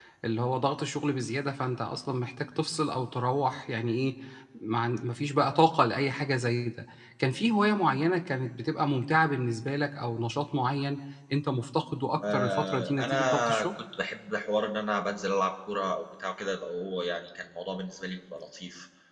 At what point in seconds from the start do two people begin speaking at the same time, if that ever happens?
12.2 s

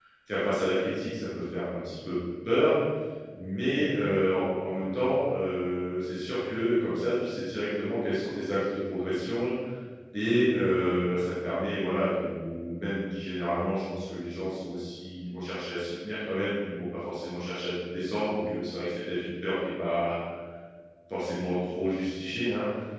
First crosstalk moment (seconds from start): none

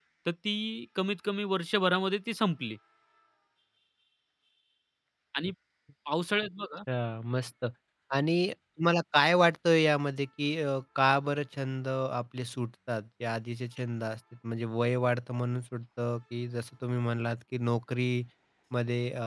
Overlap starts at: none

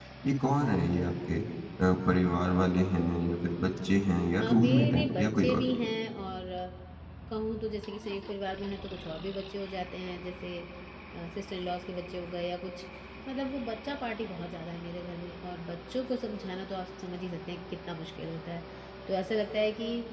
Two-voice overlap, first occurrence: 4.4 s

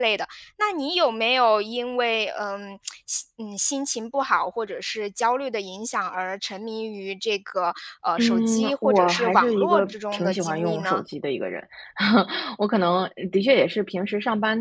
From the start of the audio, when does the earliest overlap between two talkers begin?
8.2 s

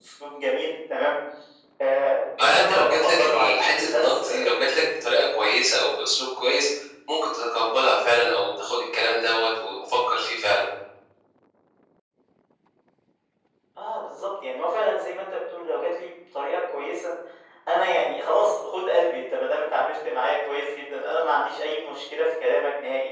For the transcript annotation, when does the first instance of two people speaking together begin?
2.4 s

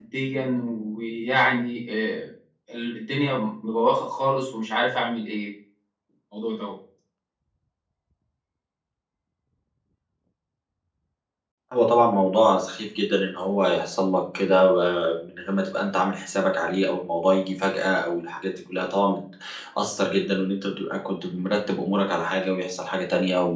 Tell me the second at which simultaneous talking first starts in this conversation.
none

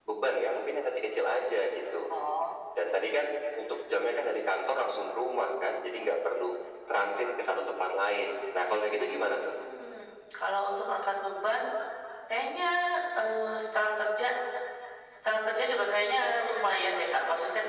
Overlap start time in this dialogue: none

